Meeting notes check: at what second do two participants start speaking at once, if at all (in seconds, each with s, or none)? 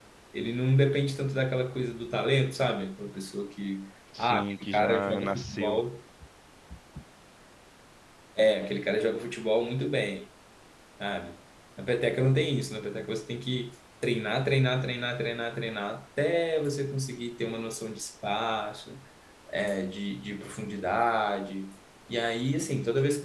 4.1 s